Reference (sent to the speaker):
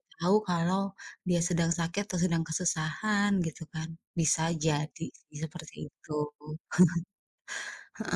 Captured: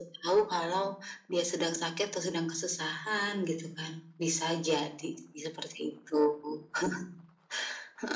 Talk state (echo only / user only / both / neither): echo only